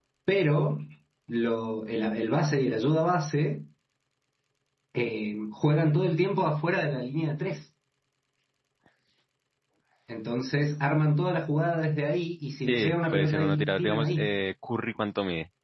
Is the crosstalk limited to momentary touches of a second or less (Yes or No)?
No